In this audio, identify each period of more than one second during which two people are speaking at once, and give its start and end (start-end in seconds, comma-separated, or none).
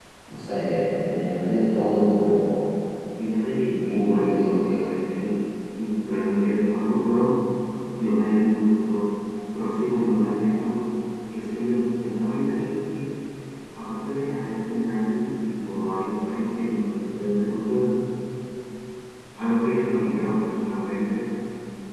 3.6-4.9